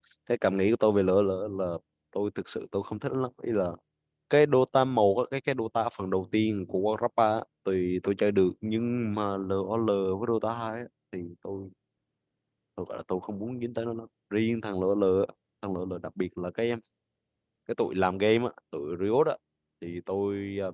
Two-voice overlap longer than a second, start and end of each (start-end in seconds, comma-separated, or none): none